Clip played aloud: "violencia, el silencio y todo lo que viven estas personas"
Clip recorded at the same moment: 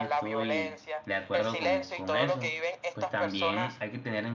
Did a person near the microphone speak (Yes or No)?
Yes